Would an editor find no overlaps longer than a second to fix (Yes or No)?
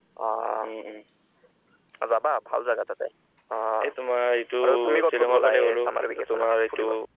No